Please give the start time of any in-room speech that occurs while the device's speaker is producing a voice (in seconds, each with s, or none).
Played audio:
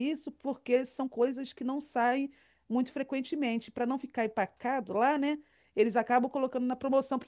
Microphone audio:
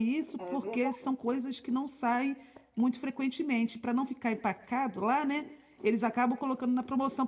0.4 s